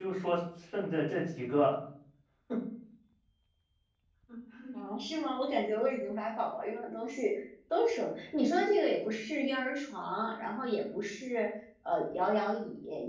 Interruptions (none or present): none